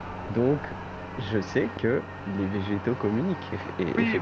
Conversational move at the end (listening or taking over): taking over